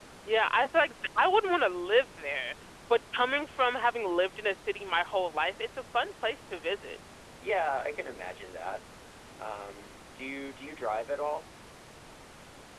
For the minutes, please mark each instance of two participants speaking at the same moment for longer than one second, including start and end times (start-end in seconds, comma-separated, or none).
none